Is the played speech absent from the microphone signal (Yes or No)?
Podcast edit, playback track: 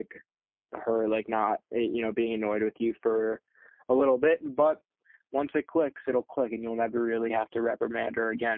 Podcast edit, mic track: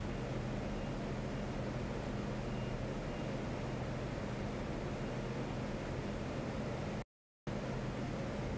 Yes